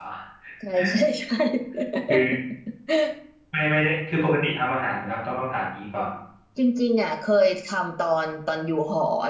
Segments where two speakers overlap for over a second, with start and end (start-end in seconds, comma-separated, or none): none